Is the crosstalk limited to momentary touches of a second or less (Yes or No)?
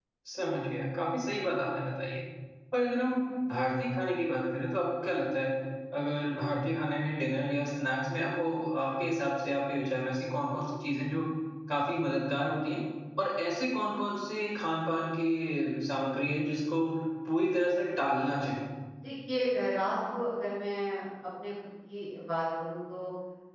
Yes